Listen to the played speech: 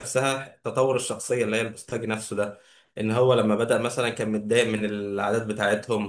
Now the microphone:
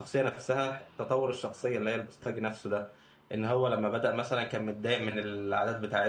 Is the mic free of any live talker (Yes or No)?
Yes